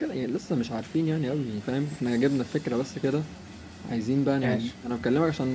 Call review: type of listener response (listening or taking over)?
listening